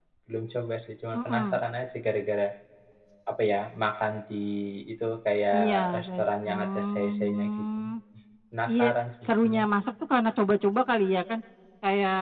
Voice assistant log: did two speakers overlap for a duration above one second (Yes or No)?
Yes